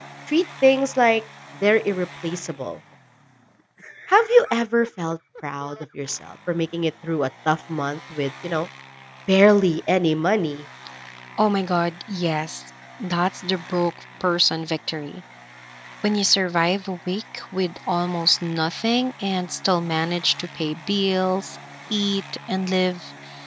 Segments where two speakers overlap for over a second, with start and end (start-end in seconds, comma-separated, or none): none